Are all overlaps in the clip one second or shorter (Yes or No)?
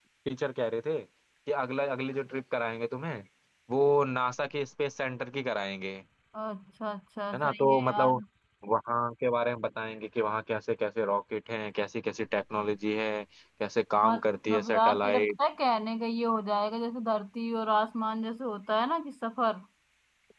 No